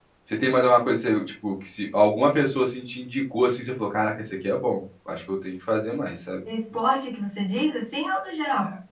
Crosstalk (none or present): none